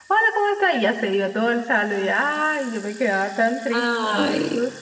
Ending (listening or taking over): listening